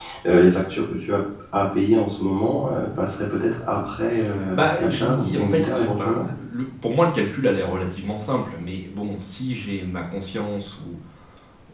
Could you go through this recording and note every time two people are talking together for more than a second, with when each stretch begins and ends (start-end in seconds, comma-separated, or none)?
4.5-6.2